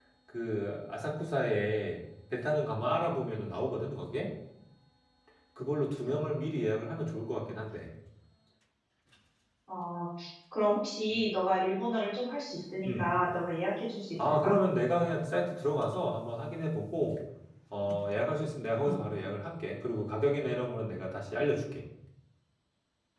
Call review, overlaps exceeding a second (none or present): none